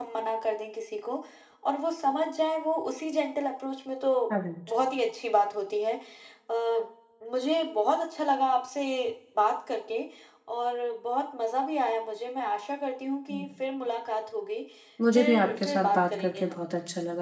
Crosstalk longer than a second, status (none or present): present